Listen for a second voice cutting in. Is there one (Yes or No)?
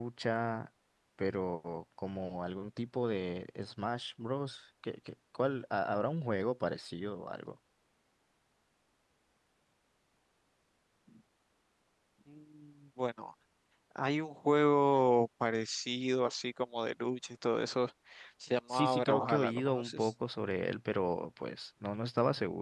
Yes